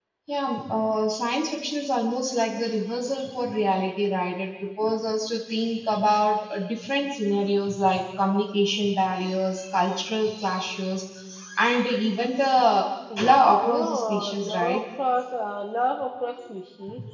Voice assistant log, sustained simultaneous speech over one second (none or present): present